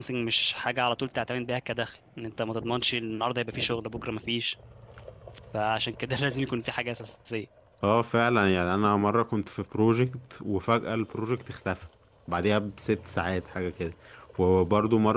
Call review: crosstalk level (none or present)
none